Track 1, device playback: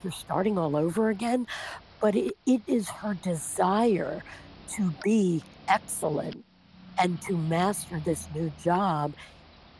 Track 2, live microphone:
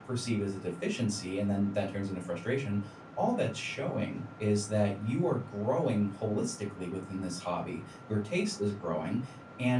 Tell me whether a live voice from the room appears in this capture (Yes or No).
Yes